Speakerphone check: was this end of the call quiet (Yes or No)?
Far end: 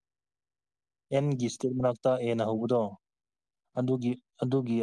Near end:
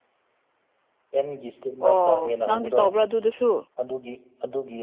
No